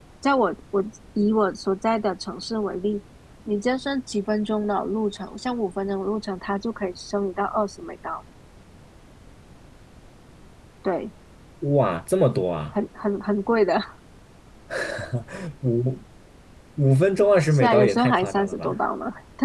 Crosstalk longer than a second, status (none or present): present